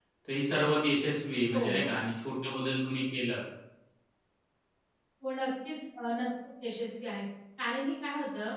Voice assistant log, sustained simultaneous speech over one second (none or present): none